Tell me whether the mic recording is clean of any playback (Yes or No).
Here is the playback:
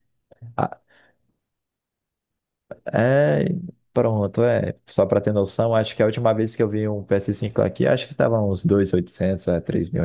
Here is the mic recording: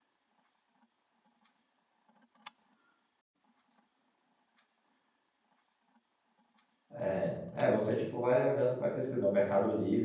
Yes